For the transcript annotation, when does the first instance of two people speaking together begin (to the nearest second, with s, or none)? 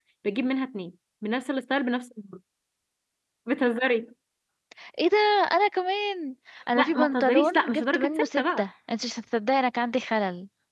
7 s